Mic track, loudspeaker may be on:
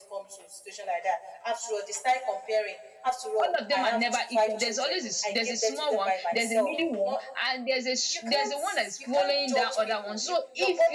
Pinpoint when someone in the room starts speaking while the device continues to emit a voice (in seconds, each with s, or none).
3.4 s